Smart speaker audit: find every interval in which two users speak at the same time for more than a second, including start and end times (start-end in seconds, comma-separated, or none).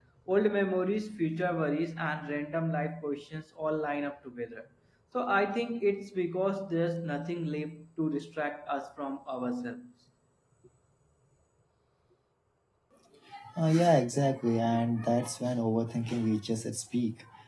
none